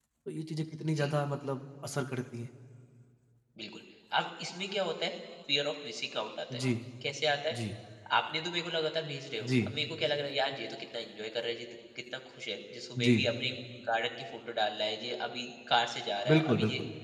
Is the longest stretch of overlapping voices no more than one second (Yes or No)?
Yes